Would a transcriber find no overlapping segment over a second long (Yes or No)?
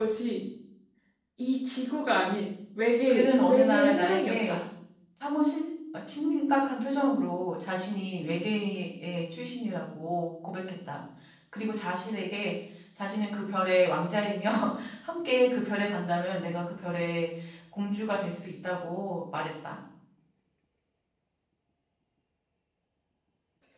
No